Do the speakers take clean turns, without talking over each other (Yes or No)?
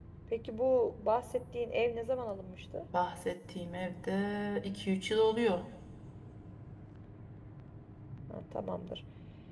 Yes